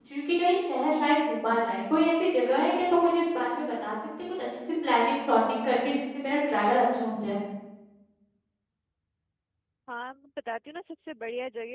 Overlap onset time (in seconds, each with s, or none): none